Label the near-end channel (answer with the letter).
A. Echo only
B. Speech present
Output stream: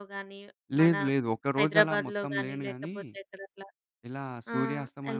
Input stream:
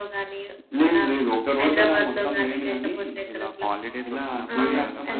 B